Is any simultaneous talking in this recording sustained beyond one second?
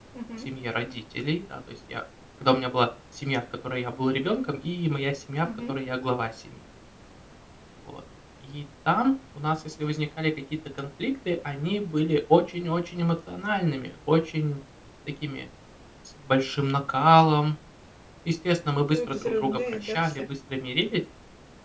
Yes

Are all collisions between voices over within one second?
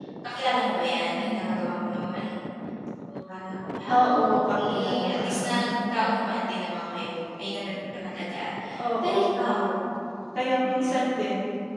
No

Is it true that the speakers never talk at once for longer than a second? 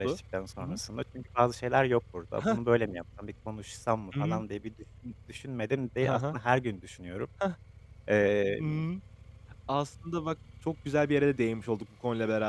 Yes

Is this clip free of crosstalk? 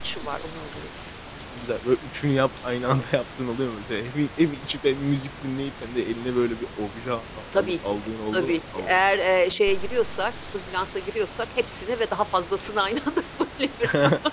No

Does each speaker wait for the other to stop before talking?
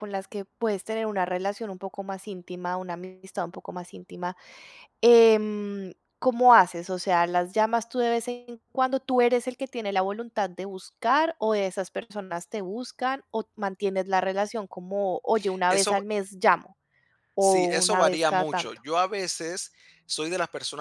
No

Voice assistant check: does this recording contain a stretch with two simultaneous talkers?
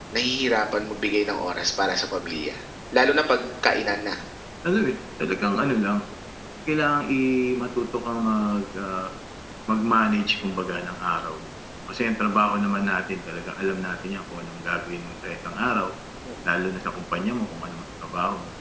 No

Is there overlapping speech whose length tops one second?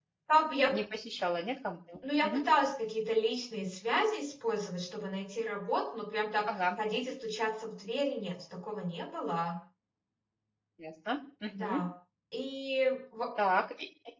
No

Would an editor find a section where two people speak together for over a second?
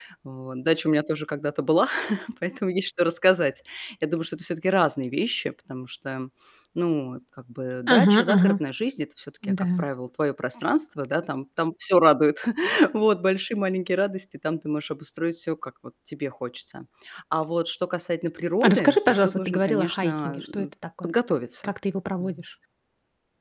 Yes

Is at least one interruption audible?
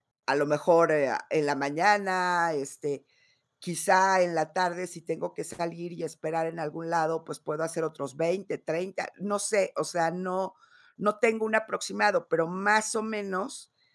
No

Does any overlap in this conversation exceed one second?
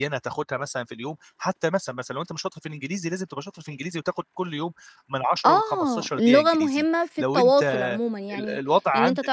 Yes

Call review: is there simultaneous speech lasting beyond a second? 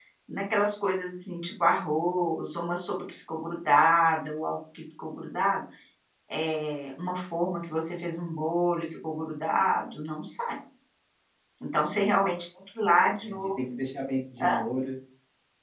No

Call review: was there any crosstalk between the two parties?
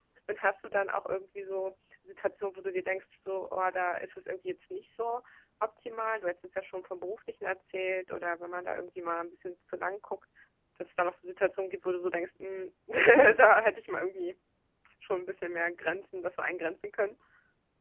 No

